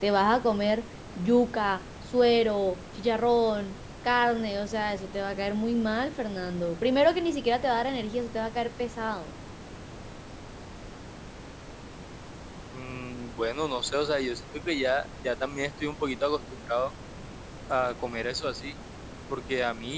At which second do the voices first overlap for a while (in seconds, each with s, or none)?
none